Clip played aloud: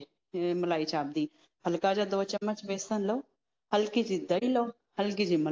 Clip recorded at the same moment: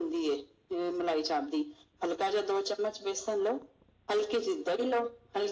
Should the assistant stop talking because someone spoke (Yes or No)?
No